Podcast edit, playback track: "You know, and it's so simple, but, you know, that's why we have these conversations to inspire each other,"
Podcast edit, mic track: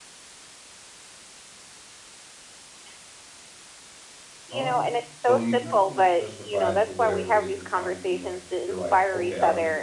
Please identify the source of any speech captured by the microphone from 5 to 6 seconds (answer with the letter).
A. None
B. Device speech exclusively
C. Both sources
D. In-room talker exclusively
C